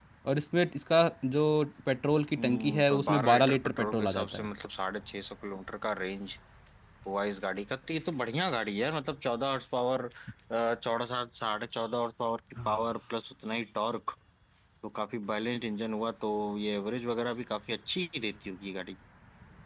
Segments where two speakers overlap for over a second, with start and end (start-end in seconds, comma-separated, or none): 2.4-4.5